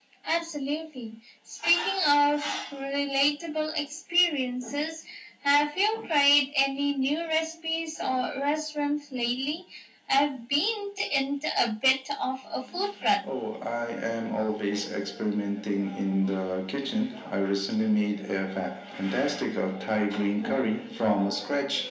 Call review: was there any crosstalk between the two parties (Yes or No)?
No